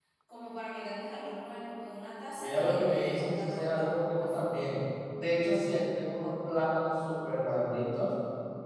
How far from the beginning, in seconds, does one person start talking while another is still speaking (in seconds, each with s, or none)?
2.4 s